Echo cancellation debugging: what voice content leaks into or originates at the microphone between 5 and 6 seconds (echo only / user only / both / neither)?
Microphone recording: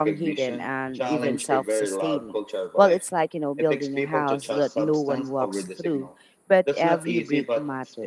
both